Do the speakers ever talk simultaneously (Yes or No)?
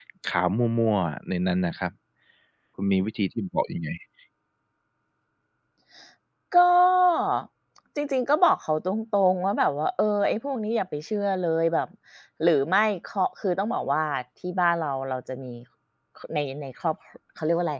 No